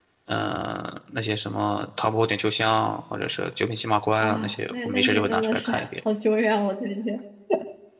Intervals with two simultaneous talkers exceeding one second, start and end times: 4.2-5.9

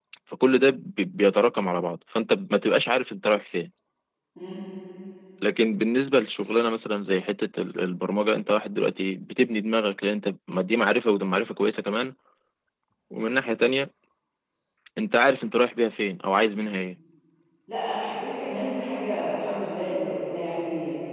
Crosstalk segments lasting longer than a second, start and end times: none

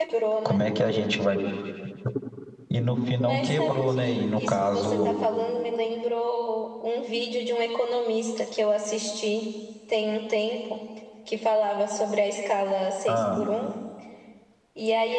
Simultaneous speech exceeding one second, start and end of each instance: 3.2-5.1

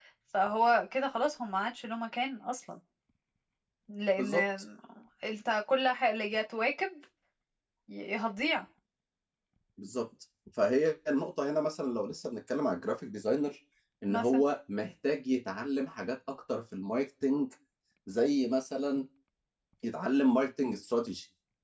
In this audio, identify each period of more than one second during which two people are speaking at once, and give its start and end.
none

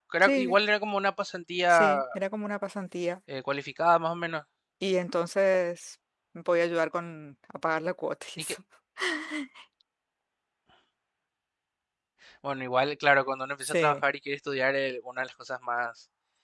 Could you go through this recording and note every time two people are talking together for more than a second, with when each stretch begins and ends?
none

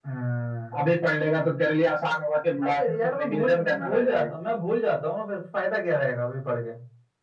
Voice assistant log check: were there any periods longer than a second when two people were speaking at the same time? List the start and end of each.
2.6-4.3

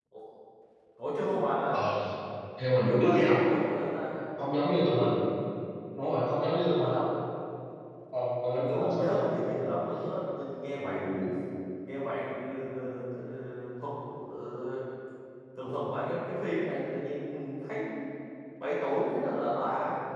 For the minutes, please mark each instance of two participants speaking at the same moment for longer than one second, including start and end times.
8.5-9.8

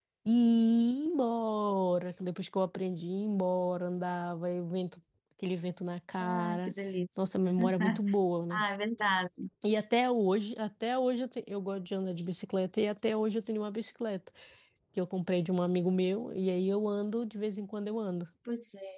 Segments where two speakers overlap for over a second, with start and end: none

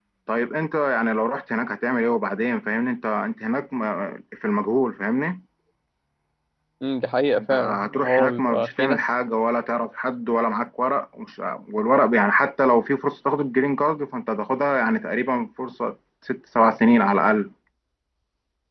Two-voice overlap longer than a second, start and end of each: 7.4-9.0

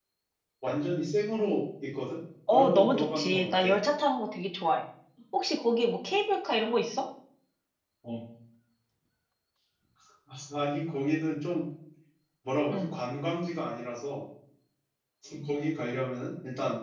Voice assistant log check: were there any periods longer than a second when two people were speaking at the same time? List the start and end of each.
2.5-3.7

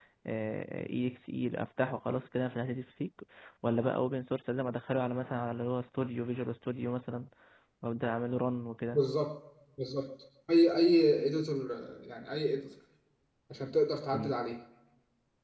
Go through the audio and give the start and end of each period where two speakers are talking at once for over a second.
none

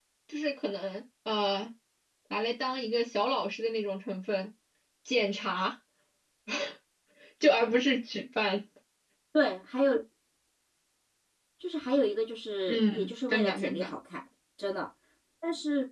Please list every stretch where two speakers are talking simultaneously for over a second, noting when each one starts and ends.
12.7-13.9

